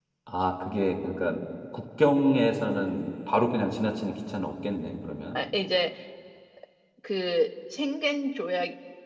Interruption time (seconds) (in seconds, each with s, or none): none